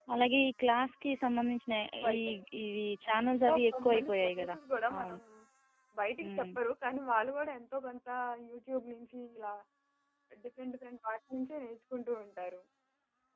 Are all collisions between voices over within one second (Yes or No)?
No